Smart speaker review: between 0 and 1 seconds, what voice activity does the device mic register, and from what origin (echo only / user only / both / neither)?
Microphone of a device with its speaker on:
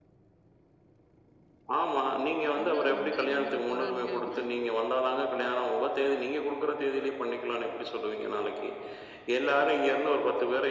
neither